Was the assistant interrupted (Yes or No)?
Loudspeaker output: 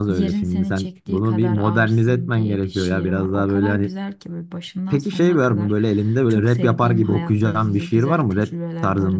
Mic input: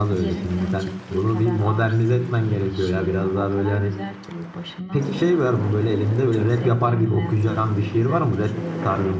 No